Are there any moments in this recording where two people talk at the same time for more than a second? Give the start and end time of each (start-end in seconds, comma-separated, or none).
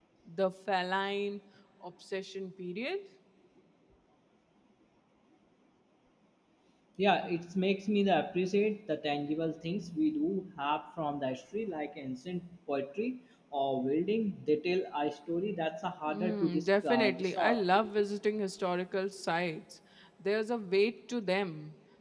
16.1-17.6